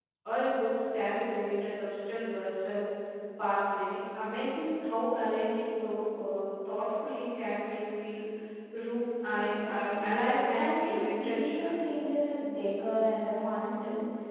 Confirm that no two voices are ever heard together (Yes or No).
No